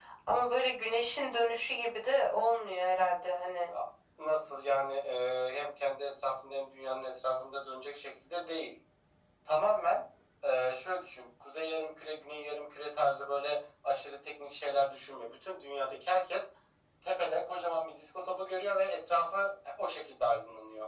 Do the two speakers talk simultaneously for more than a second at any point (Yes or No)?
No